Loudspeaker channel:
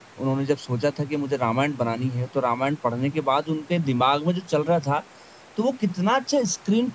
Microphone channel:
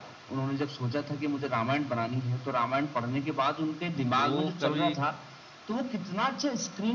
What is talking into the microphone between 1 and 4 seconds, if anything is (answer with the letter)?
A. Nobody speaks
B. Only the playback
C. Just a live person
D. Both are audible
B